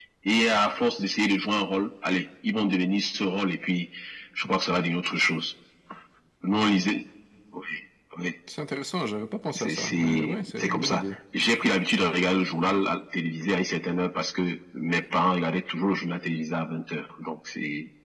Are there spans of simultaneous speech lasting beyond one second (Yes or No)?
Yes